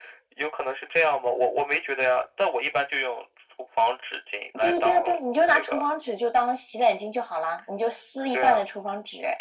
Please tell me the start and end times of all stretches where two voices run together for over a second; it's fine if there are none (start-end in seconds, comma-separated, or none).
4.6-5.9